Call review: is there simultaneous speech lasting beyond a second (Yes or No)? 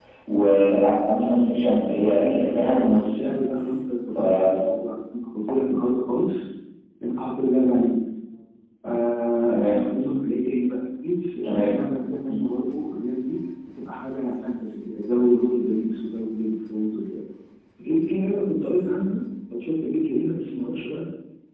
Yes